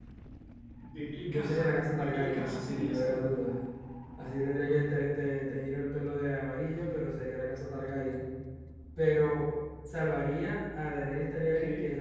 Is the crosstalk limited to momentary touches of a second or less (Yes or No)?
No